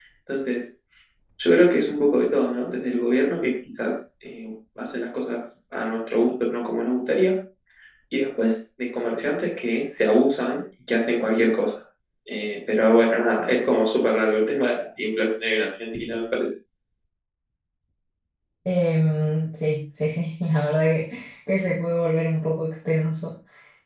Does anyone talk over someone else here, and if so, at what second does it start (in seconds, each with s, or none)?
none